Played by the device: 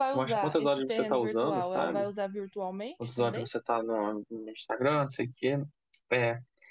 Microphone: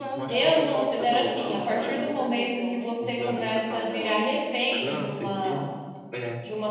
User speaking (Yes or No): Yes